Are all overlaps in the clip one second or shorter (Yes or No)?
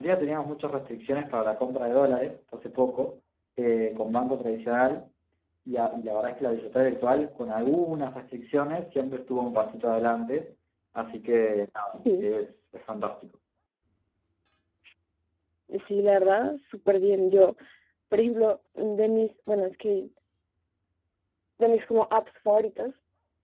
Yes